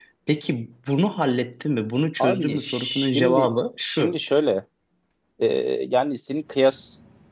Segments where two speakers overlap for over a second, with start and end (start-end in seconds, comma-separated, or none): 2.2-4.2